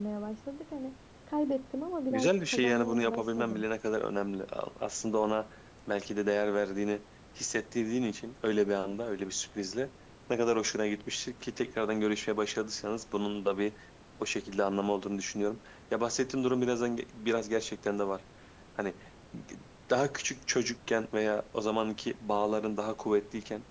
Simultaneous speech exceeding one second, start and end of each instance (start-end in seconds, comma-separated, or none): 2.1-3.6